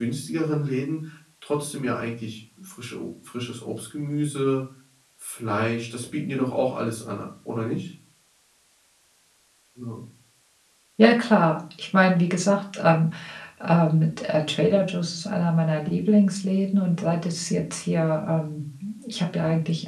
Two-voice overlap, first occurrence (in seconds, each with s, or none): none